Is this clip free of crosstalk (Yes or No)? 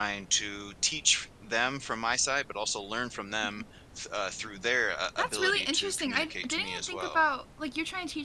No